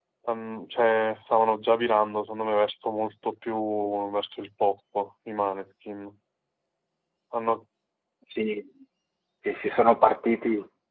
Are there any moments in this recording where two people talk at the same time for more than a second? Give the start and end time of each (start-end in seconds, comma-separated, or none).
none